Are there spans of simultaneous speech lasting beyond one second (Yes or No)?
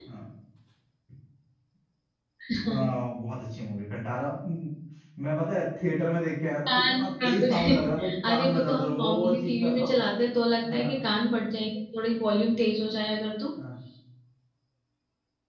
Yes